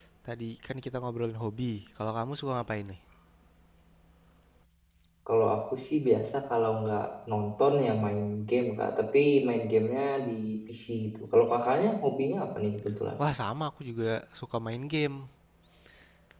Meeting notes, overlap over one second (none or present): none